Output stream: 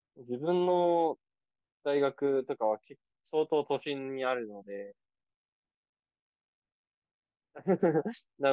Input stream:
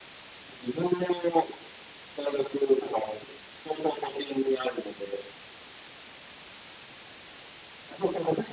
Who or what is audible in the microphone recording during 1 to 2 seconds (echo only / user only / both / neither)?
echo only